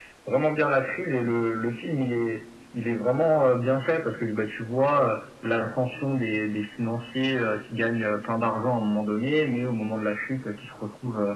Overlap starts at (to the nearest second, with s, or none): none